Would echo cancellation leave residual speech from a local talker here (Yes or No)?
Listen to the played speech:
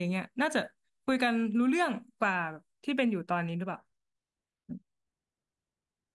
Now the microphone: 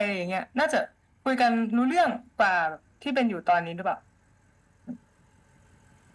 No